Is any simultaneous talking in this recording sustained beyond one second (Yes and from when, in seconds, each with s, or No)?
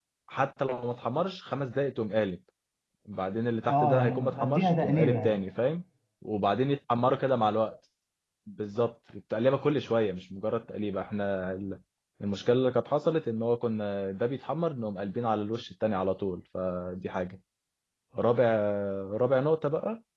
Yes, from 3.7 s